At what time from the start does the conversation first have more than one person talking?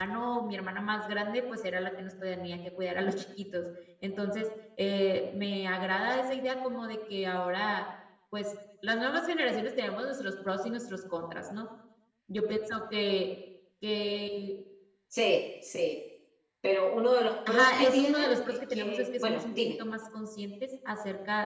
17 s

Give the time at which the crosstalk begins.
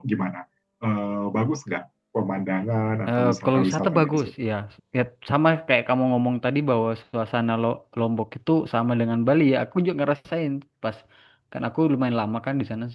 3 s

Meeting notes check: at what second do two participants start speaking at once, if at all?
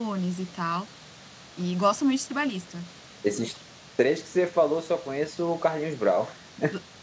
none

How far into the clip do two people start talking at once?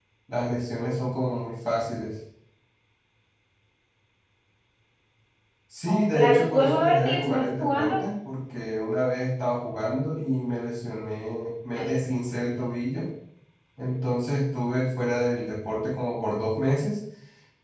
6 s

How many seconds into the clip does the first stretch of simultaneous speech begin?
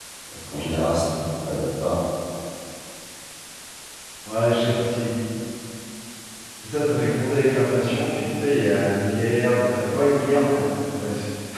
none

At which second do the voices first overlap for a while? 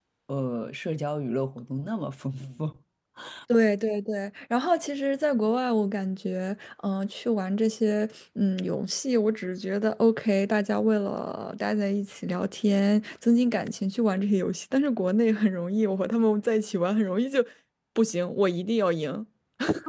none

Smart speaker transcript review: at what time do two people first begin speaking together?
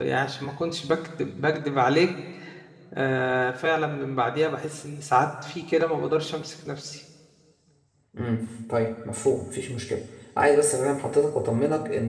none

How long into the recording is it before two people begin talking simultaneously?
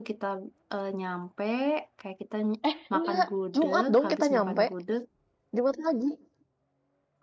3 s

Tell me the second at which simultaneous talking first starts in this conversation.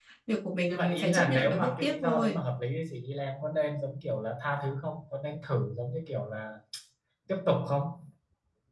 1 s

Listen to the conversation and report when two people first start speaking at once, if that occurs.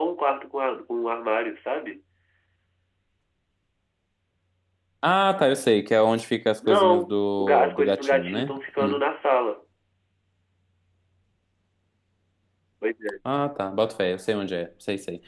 7 s

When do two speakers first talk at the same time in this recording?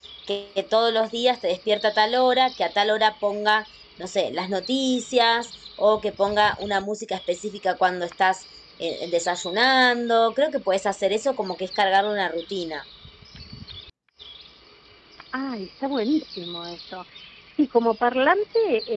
none

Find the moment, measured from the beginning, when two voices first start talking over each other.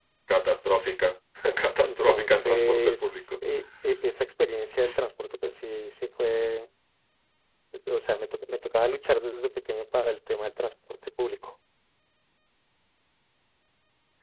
2 s

